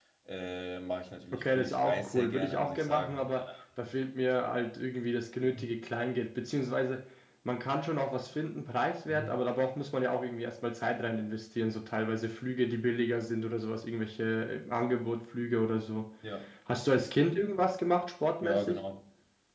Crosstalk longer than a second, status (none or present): present